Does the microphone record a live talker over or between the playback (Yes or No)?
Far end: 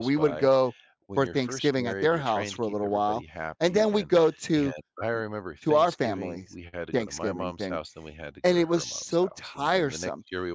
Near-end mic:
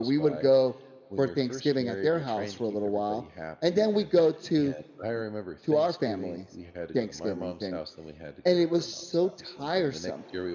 No